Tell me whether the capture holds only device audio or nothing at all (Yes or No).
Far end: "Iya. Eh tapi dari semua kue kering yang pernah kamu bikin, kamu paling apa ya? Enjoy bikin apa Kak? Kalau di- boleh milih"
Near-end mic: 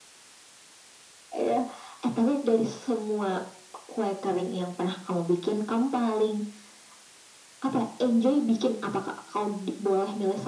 Yes